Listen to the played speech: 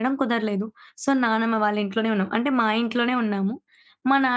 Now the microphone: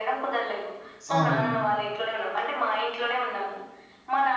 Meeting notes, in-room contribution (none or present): present